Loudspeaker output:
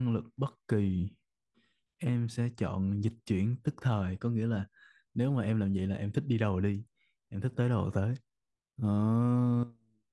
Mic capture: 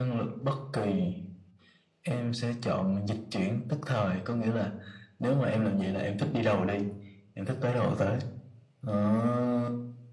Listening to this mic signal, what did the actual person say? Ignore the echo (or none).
none